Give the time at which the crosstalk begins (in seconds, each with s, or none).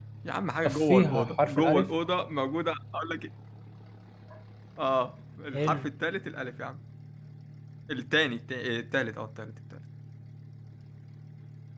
0.6 s